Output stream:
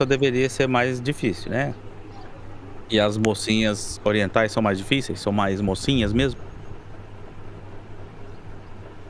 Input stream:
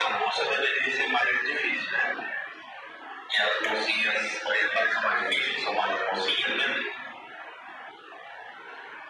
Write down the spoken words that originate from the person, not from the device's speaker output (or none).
none